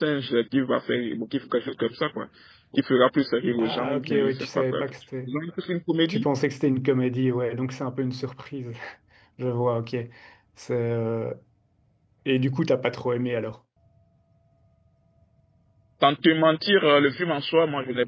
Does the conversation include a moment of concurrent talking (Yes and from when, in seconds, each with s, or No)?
Yes, from 3.6 s